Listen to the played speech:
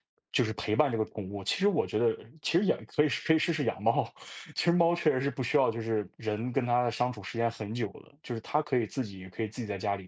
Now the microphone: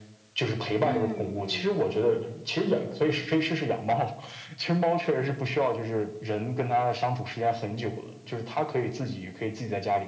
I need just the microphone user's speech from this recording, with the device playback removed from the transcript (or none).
嗯嗯。